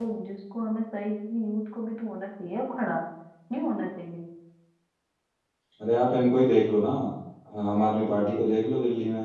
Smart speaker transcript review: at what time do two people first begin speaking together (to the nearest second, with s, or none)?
none